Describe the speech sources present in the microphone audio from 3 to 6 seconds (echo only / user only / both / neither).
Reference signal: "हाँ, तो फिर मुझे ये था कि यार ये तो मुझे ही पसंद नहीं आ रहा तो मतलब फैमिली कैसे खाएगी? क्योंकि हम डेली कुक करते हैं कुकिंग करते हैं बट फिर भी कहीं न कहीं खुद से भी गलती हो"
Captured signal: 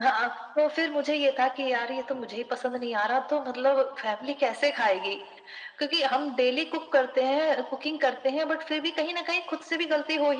echo only